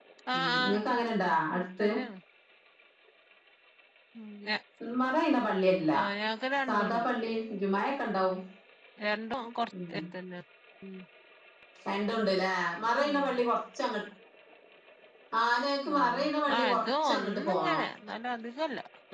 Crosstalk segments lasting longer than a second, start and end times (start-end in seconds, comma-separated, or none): 16.6-17.8